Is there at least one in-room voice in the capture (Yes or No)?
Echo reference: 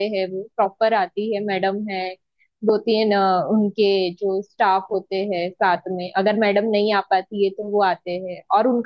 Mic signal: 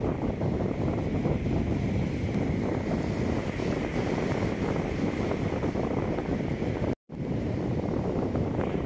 No